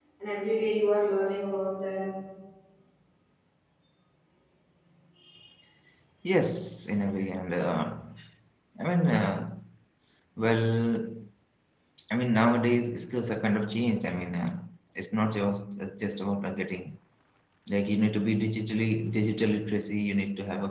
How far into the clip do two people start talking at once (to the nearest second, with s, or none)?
none